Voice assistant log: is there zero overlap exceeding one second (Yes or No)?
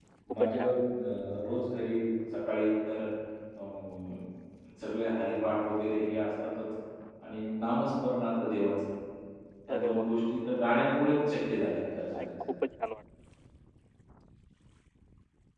Yes